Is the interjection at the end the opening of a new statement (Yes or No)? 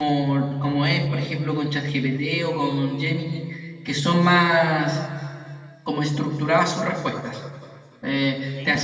No